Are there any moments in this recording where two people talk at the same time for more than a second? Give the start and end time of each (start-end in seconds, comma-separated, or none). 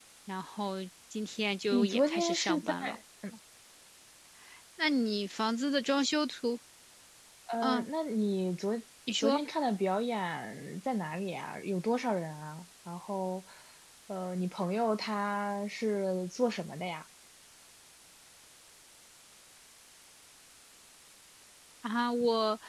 1.7-3.0